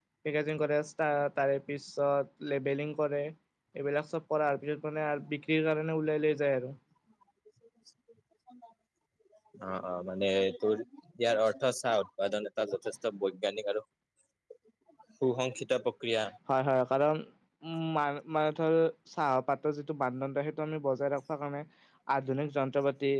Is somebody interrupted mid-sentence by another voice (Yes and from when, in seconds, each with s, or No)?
No